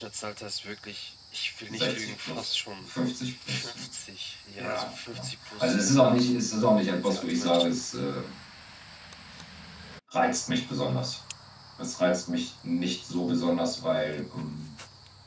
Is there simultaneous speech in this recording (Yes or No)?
Yes